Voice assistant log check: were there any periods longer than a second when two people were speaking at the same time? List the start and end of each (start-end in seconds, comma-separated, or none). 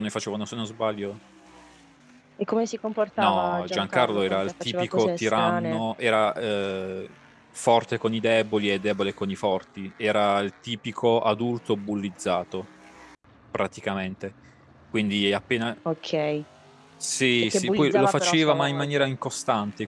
3.2-5.8, 17.5-19.1